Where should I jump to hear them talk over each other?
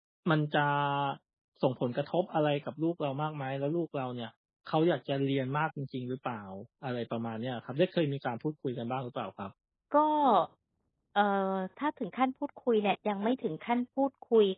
none

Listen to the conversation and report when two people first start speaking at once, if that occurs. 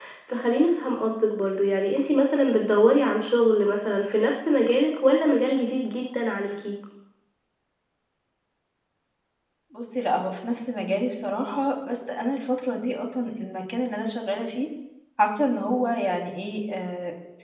none

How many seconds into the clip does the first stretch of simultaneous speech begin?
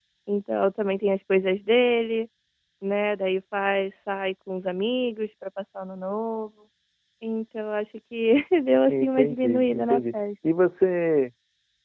8.9 s

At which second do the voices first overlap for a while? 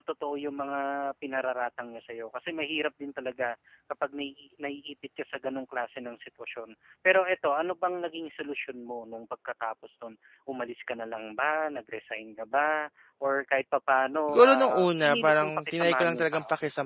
14.3 s

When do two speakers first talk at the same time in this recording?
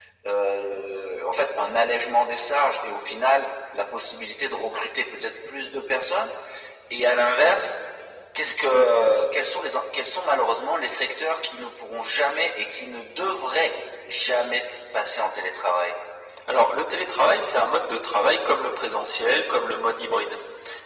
none

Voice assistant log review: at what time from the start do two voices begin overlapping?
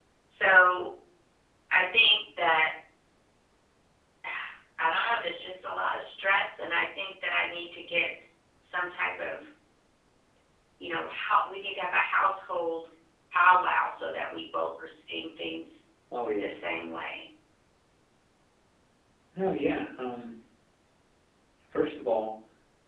none

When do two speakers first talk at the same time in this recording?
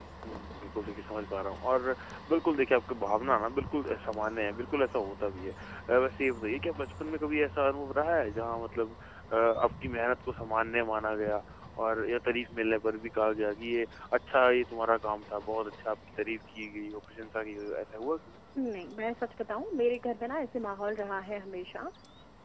none

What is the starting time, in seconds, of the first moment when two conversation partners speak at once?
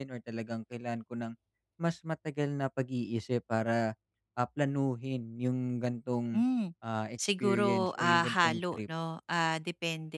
7.2 s

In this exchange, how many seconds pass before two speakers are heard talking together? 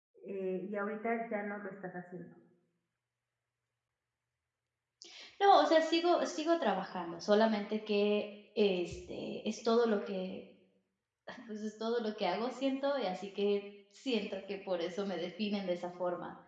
none

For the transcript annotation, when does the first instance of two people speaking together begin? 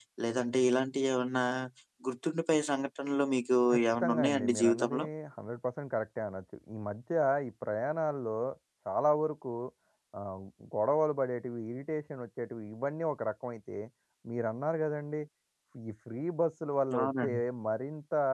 3.7 s

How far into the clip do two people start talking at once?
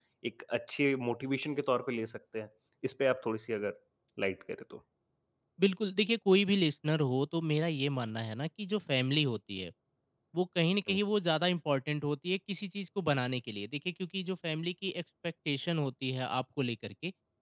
none

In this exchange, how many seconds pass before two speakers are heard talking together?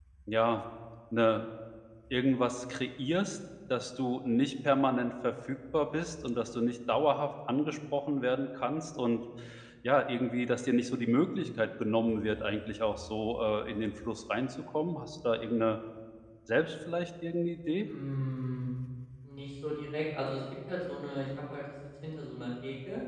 none

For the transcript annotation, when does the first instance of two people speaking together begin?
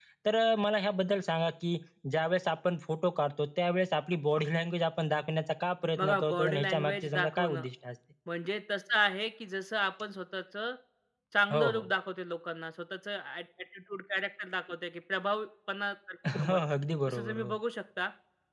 6.0 s

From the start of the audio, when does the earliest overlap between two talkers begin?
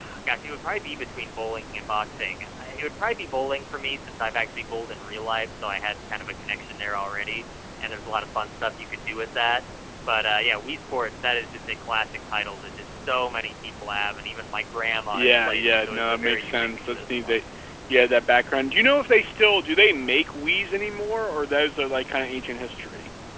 15.1 s

